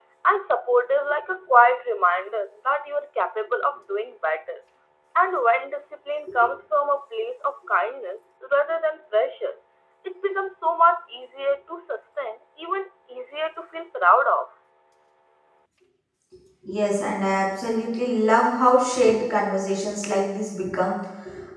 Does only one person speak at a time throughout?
Yes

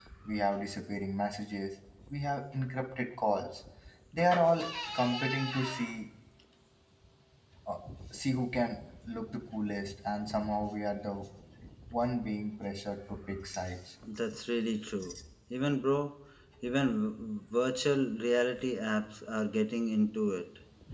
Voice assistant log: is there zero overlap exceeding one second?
Yes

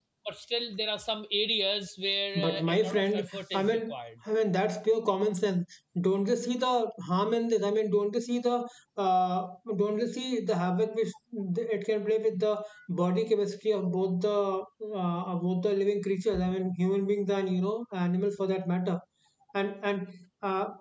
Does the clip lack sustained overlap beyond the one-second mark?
No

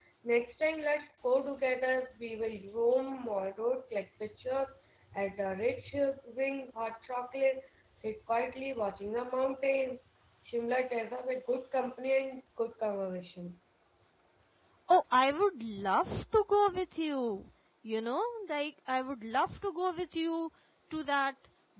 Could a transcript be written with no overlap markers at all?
Yes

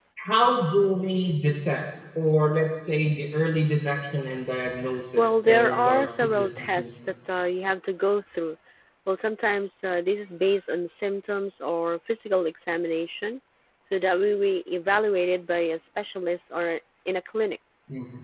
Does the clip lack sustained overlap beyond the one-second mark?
No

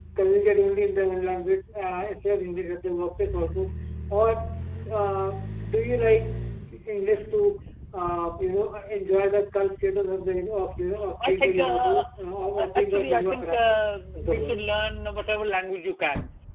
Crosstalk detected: Yes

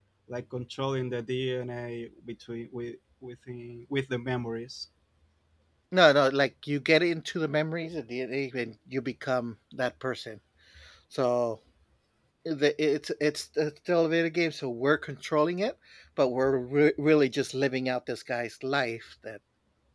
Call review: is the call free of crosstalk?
Yes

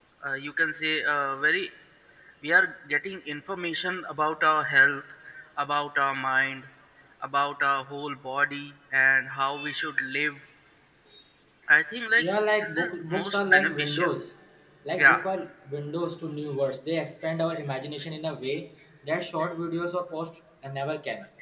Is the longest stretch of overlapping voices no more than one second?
No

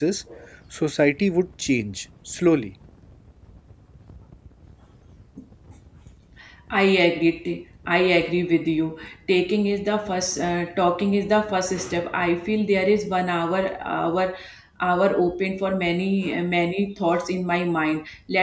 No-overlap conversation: Yes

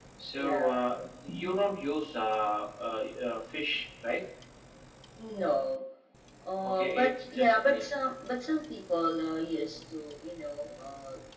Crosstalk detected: Yes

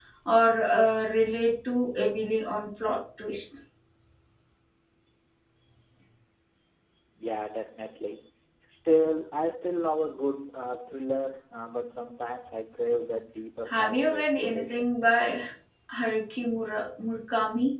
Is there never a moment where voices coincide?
No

